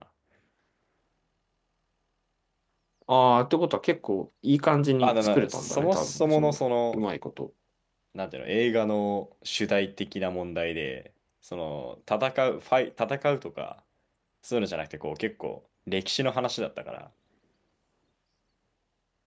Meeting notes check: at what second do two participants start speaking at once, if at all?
5.0 s

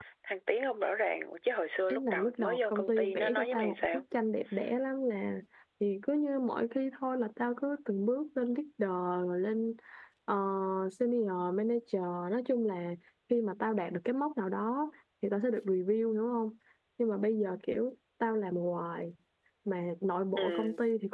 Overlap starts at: 1.9 s

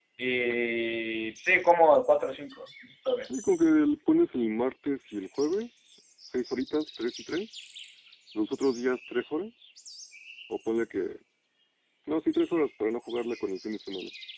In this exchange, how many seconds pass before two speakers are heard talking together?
none

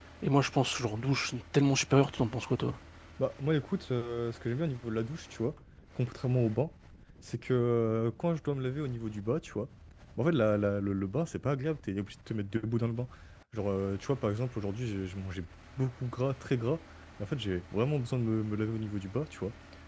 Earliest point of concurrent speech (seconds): none

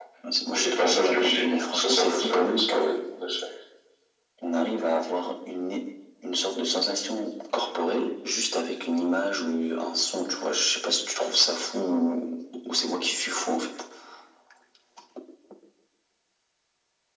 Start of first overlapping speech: 0.5 s

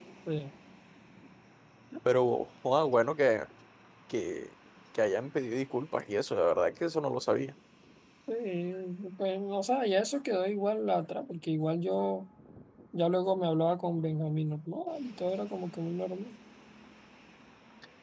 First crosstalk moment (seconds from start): none

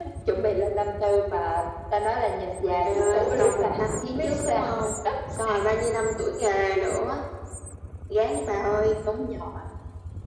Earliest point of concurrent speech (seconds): 2.8 s

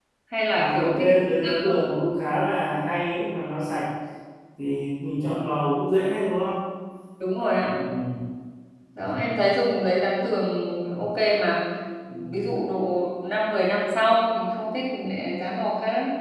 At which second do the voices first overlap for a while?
0.6 s

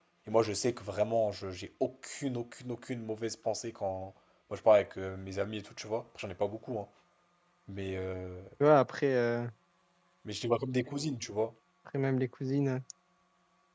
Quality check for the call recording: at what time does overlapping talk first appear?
none

